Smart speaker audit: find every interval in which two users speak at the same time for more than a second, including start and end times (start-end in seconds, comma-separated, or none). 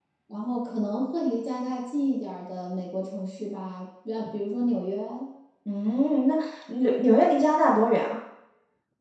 none